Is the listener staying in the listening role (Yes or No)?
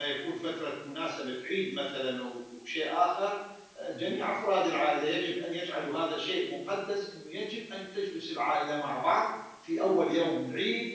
Yes